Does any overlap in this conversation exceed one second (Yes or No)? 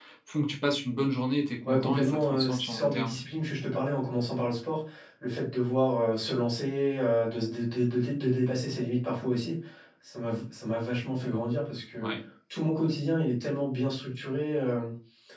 Yes